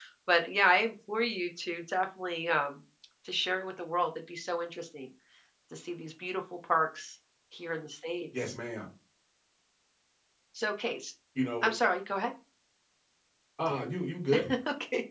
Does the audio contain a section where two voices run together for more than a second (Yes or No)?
No